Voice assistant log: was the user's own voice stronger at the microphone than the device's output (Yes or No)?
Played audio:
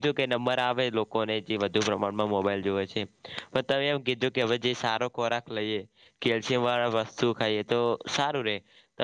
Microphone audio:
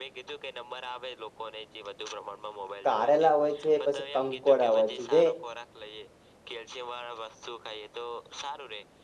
Yes